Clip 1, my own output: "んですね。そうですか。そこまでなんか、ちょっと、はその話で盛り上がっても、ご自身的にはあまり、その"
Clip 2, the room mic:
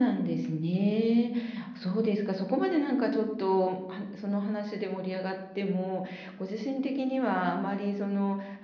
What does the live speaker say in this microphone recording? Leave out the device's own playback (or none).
none